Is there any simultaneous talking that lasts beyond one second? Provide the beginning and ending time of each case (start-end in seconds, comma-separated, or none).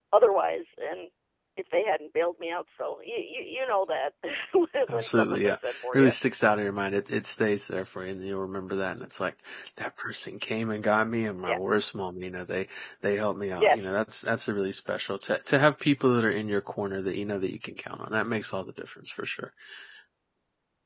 4.9-6.1